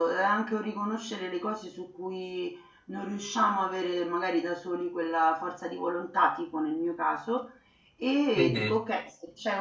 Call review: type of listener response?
listening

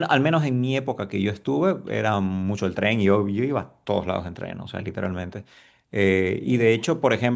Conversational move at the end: listening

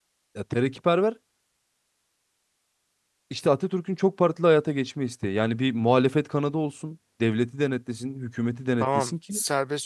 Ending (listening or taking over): taking over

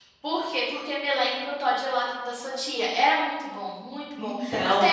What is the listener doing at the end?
listening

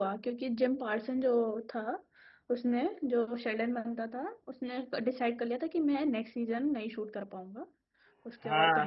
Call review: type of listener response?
taking over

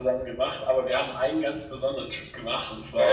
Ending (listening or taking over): taking over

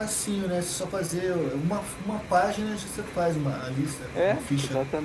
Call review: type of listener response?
taking over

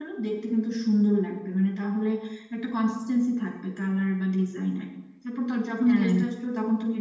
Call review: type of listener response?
listening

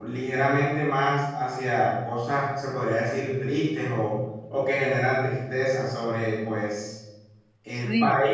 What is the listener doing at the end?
listening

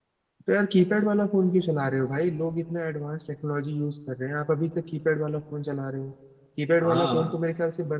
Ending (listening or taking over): listening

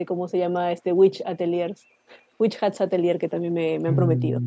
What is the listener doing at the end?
taking over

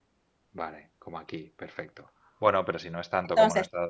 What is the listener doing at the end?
taking over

